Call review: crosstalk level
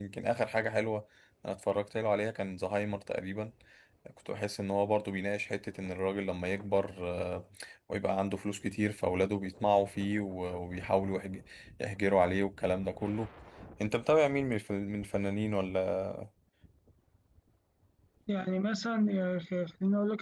none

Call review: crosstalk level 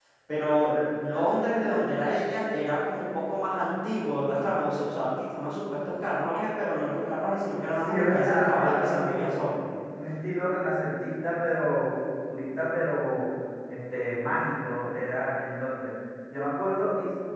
present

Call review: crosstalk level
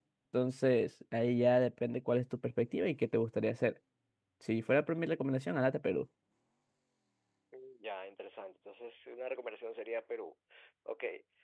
none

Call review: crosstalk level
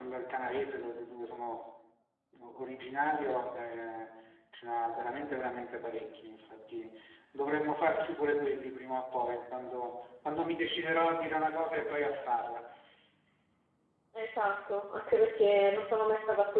none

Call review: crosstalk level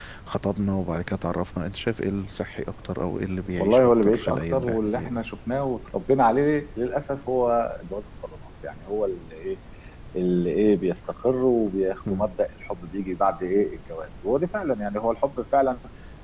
present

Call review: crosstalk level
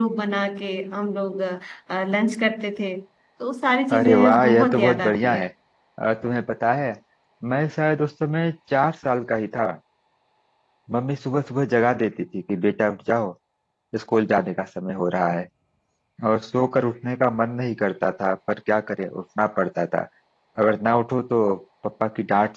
present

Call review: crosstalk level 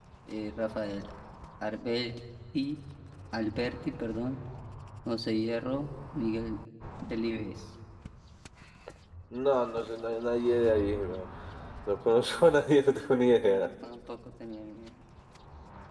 none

